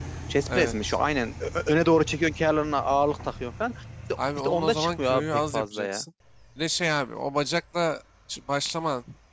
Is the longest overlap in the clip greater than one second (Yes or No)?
Yes